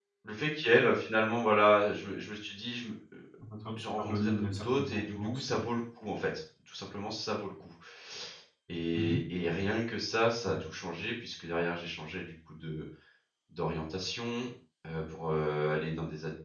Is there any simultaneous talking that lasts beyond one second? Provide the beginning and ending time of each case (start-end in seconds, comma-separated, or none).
3.8-5.7